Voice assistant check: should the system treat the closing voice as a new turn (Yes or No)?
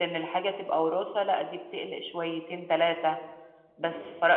No